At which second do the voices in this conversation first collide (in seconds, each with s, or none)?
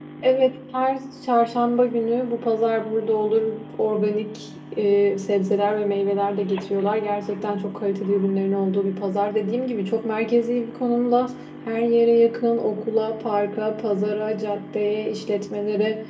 none